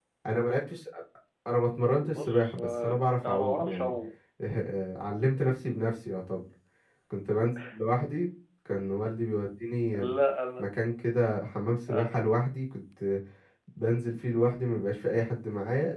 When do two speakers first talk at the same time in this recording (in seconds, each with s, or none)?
2.0 s